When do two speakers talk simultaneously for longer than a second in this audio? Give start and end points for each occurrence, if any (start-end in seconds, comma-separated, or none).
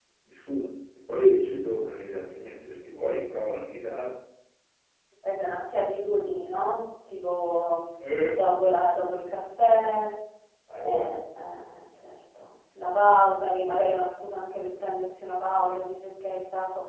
none